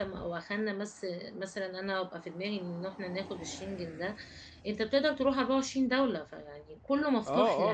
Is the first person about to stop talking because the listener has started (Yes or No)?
Yes